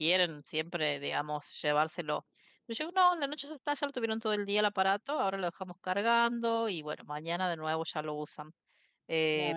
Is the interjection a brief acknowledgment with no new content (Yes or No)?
Yes